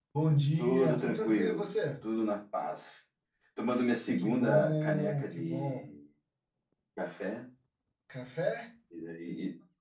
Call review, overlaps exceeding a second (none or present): present